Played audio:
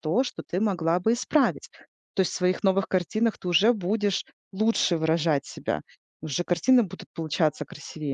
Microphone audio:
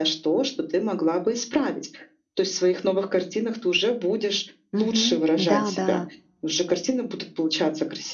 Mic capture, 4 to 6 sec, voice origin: both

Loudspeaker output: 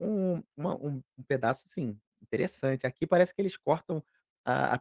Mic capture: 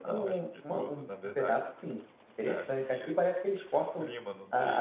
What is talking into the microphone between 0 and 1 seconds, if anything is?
both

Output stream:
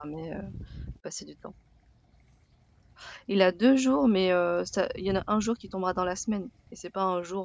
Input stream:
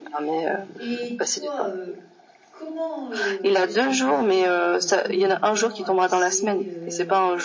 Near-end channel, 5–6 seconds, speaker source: both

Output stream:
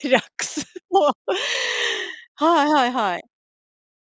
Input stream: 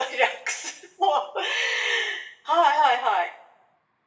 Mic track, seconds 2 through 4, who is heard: echo only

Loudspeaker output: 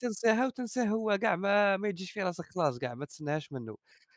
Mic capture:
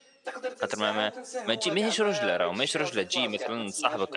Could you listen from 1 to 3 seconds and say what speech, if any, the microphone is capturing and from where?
both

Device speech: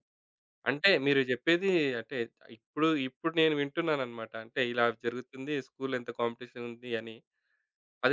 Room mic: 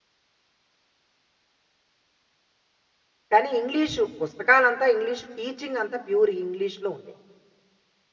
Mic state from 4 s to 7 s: user only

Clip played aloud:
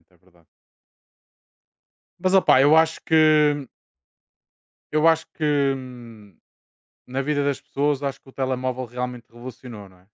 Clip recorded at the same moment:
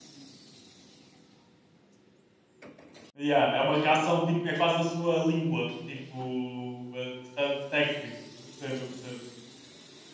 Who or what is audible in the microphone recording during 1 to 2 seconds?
neither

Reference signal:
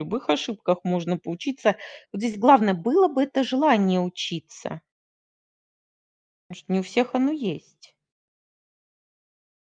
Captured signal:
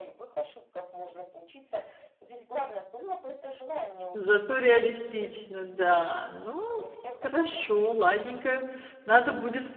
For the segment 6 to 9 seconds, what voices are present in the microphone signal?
both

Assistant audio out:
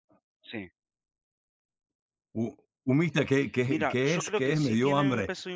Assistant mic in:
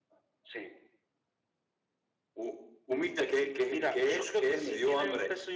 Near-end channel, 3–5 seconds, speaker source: echo only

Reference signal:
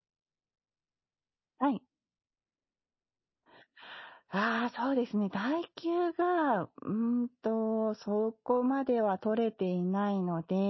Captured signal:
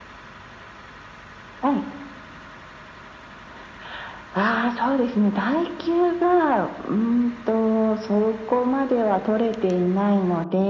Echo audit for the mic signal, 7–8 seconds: echo only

